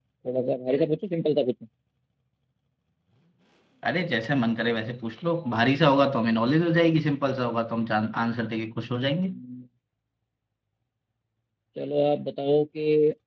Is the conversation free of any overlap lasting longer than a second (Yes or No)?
Yes